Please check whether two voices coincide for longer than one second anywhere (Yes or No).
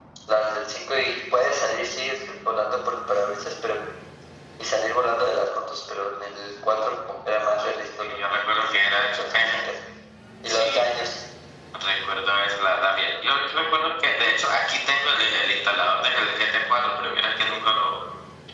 Yes